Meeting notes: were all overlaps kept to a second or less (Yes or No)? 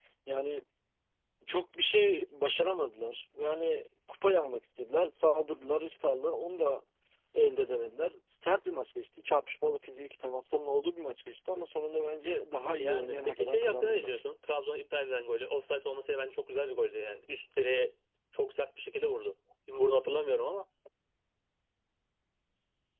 No